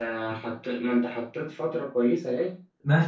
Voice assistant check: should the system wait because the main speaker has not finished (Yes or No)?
No